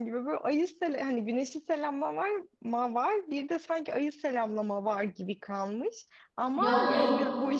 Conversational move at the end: listening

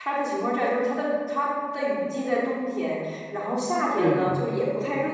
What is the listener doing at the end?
listening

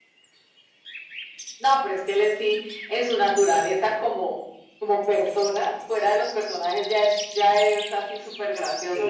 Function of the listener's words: taking over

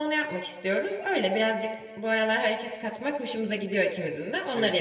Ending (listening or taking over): taking over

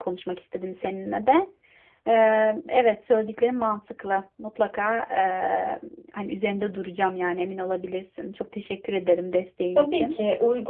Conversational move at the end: taking over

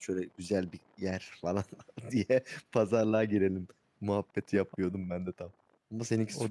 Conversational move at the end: taking over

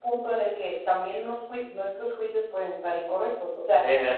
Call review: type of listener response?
listening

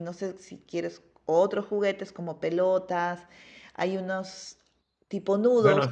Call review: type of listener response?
taking over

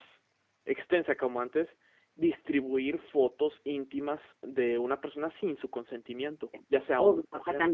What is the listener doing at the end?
taking over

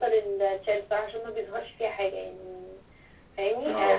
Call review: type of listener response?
listening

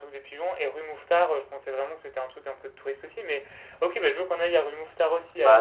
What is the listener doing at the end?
taking over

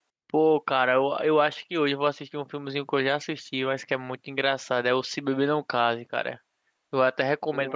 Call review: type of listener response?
listening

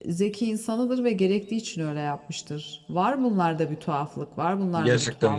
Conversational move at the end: taking over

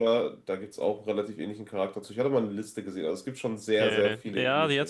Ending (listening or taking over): taking over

